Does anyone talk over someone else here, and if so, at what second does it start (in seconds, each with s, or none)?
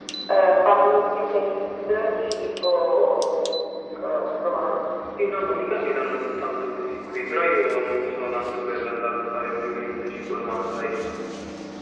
none